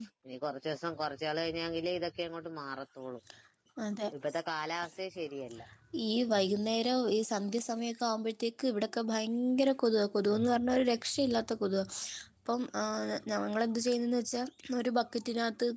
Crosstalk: none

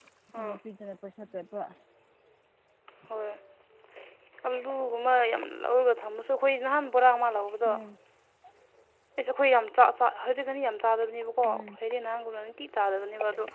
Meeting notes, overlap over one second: none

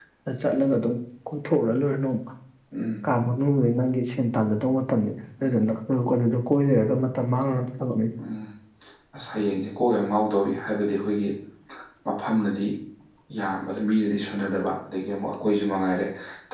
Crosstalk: none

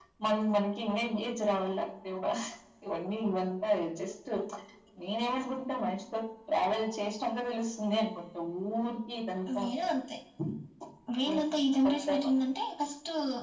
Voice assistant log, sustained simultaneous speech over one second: none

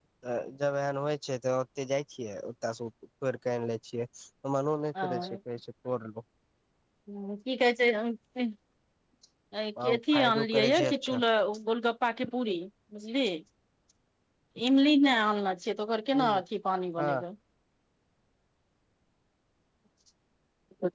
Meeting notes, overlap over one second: present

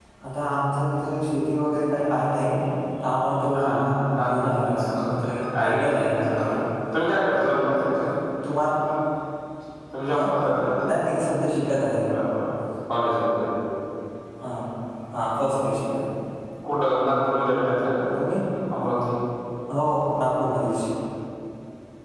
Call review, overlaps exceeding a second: present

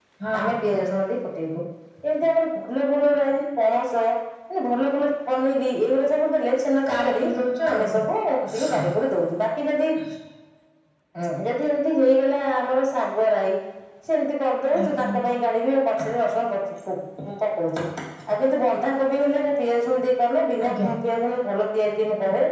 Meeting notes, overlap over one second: none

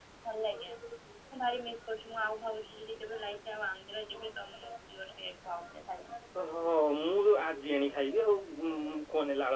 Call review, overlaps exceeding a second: none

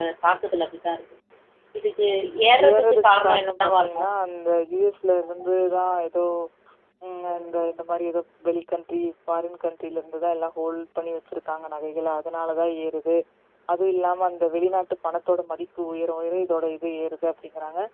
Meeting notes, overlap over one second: present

